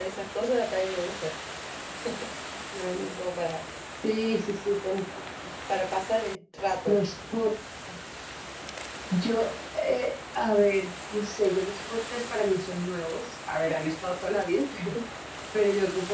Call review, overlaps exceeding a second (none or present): none